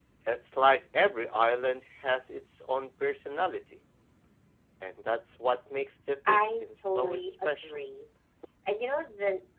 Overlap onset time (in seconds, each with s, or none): 6.2 s